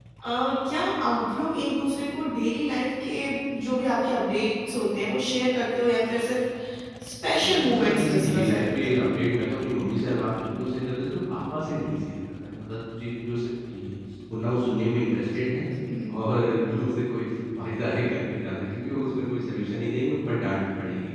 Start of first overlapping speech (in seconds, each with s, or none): 7.4 s